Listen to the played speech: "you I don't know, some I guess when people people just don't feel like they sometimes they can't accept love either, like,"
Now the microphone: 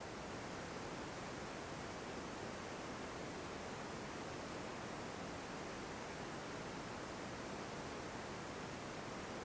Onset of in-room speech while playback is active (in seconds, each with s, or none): none